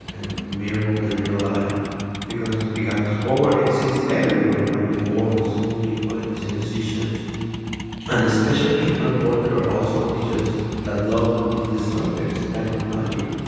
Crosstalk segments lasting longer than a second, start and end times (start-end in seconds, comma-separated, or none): none